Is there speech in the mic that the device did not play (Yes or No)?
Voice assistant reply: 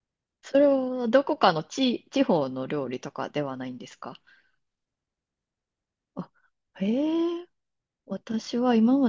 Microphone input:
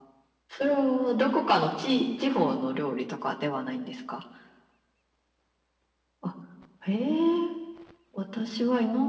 No